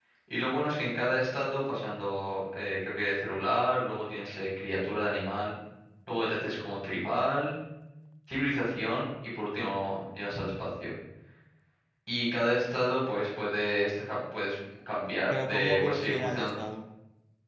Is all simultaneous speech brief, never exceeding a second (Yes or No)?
No